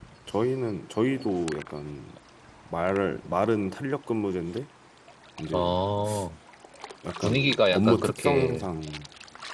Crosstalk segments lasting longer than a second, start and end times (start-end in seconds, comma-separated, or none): 7.2-8.7